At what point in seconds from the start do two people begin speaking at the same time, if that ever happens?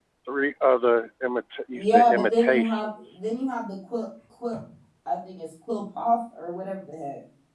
1.7 s

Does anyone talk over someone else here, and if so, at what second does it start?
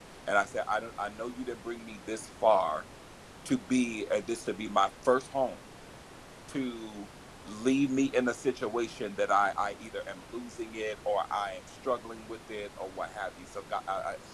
none

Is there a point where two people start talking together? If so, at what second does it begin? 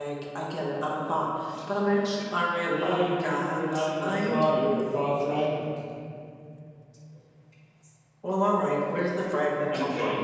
2.6 s

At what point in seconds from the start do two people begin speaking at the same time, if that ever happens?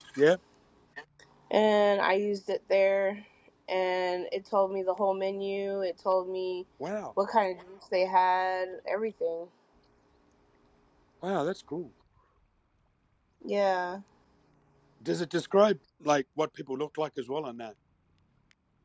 none

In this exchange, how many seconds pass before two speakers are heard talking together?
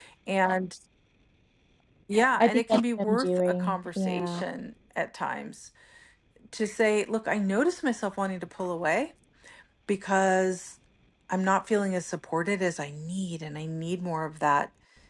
2.4 s

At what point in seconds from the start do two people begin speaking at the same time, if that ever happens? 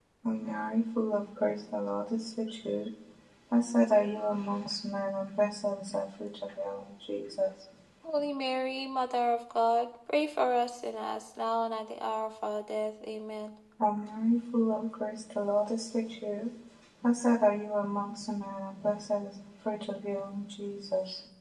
none

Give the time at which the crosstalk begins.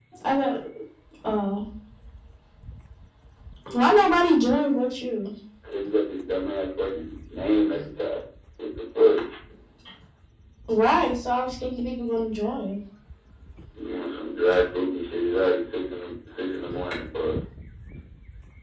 none

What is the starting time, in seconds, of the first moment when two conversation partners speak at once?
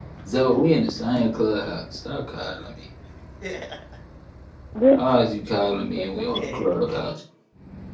5.5 s

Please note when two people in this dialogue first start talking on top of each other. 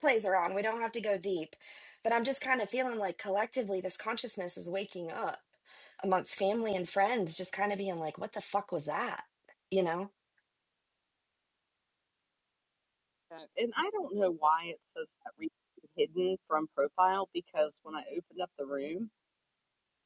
none

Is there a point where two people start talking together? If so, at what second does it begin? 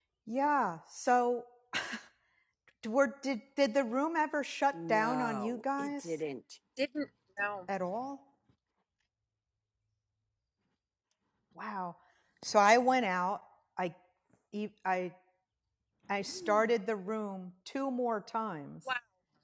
4.9 s

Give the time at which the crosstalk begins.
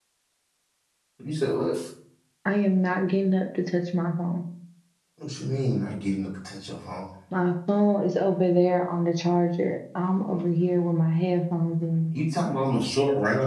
none

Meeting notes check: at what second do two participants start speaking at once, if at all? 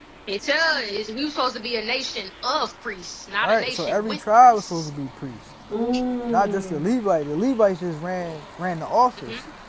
3.4 s

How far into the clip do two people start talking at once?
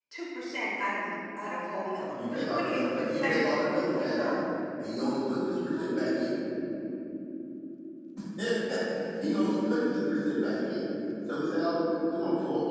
2.1 s

